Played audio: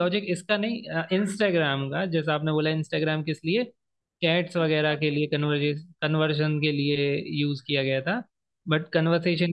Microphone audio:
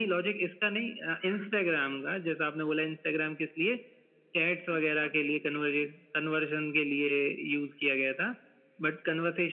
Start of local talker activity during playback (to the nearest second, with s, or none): none